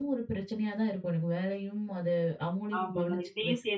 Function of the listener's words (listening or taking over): taking over